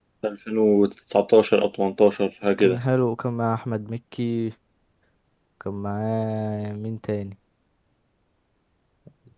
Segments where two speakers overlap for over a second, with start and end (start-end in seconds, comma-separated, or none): none